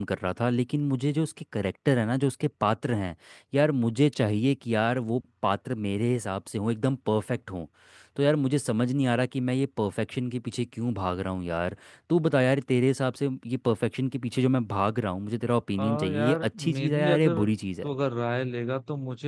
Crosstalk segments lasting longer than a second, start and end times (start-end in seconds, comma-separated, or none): 15.8-17.4